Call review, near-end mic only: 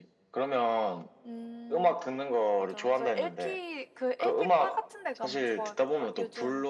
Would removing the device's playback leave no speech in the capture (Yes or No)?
Yes